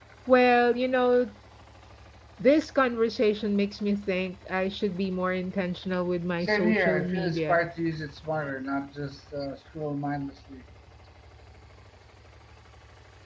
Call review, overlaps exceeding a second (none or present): present